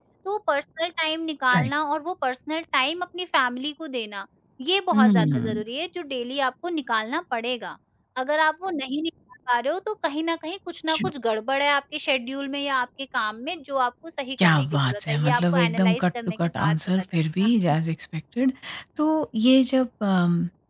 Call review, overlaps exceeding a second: present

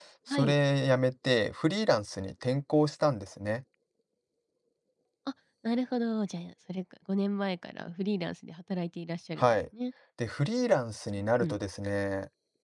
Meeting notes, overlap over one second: none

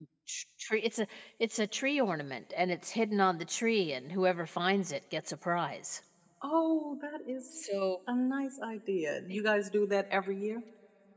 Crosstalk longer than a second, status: none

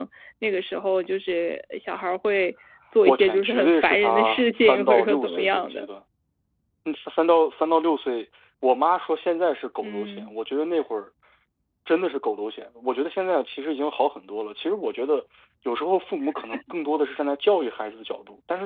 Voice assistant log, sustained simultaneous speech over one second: present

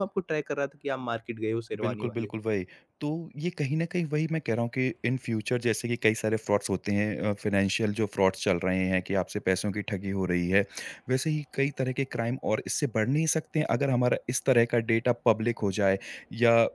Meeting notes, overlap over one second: none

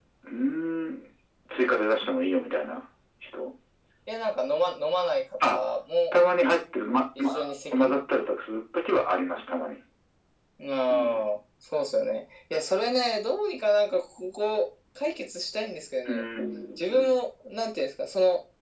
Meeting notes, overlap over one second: none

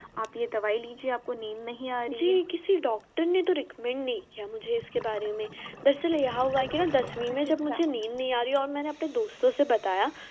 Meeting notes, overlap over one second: none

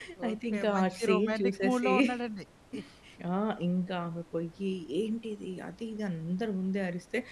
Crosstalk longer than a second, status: present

